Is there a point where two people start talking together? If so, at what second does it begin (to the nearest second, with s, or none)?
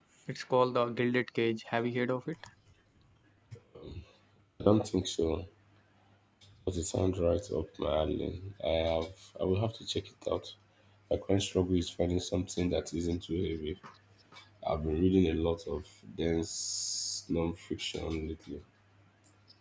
none